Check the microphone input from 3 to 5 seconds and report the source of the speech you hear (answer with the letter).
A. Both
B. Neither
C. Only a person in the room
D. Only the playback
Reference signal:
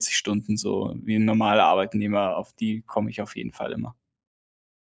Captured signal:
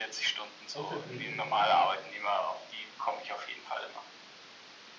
D